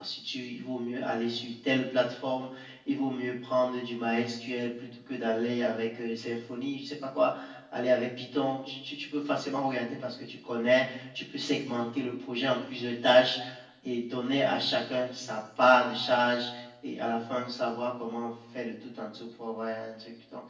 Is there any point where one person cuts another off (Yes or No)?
No